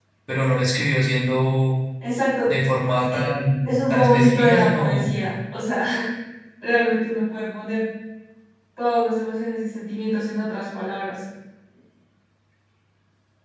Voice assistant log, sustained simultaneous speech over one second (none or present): present